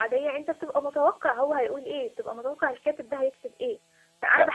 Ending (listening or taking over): listening